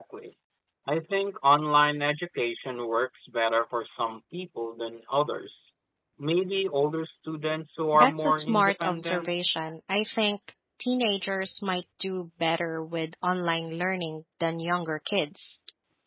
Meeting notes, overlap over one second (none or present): present